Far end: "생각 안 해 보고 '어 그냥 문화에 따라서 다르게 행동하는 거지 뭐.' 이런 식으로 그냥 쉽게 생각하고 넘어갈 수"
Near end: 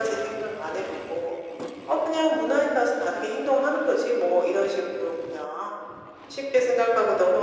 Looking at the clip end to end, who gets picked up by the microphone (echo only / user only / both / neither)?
echo only